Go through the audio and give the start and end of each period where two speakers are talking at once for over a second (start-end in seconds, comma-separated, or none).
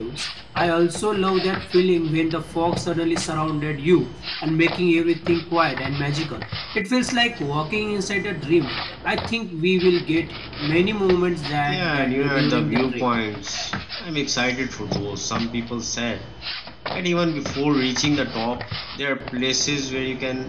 11.7-13.0